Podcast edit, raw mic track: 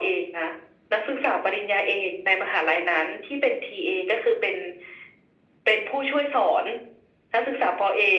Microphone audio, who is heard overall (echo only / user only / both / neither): echo only